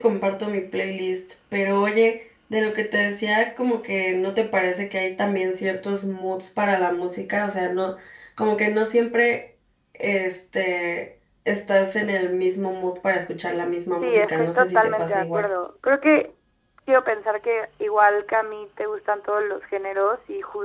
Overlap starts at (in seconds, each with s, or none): 14.0 s